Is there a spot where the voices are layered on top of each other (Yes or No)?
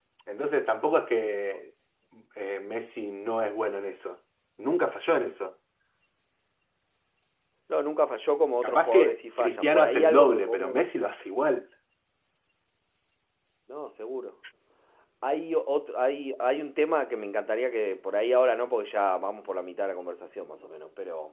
Yes